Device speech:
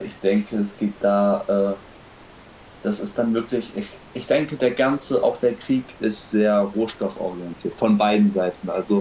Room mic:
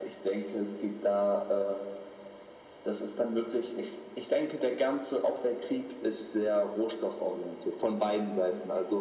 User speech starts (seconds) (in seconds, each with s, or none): none